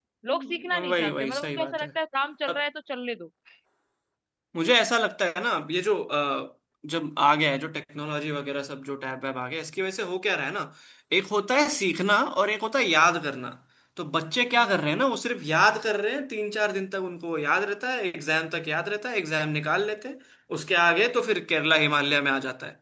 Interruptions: present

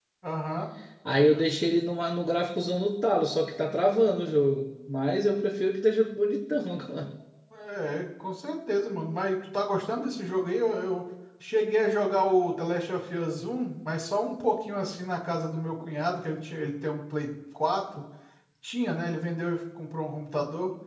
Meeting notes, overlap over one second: none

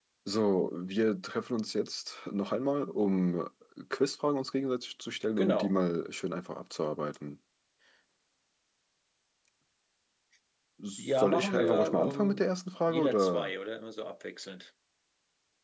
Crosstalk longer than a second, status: present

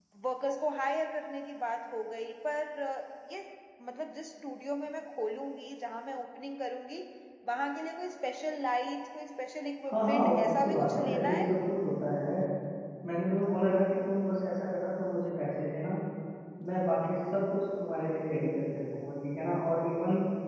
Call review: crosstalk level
present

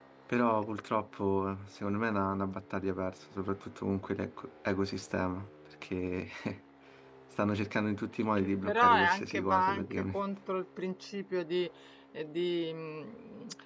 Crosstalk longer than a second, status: present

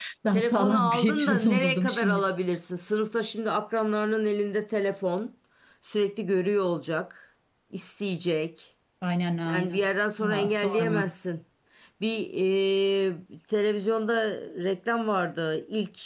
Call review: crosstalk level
present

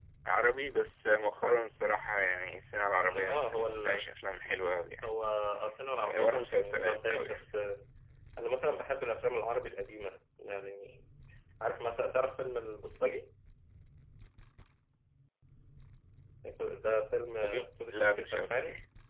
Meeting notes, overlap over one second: present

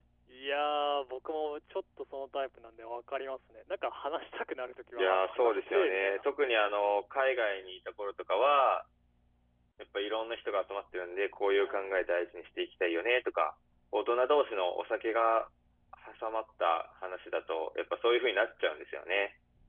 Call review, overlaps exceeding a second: present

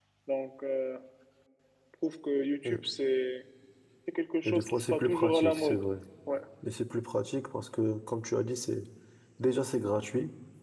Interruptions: present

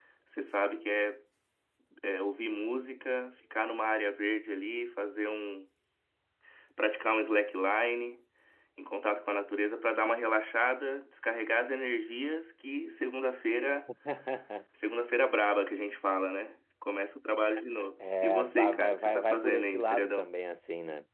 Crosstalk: present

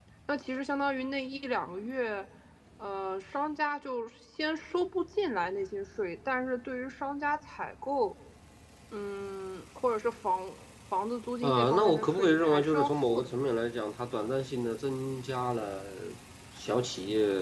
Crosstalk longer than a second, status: present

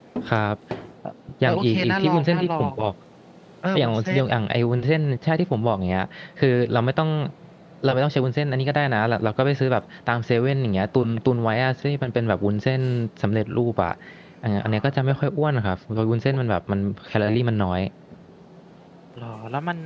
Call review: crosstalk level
present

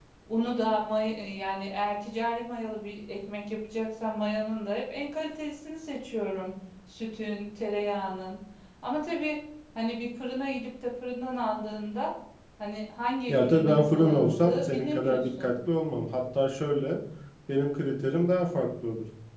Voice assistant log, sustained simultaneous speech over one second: present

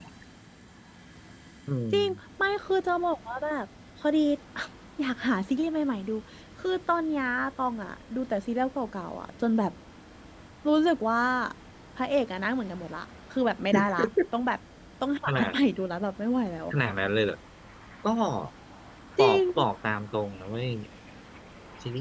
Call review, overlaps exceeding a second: none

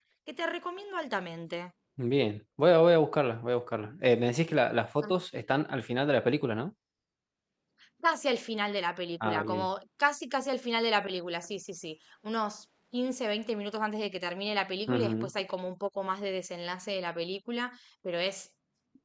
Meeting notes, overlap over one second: none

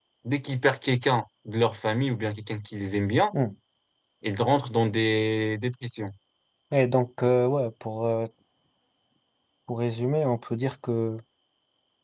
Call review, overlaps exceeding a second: none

